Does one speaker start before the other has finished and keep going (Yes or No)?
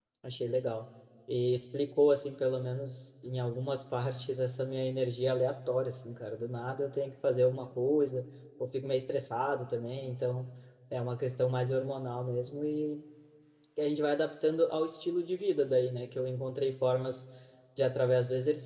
No